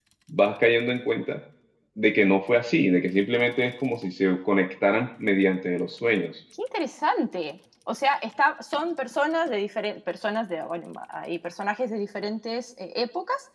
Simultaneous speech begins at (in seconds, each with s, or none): none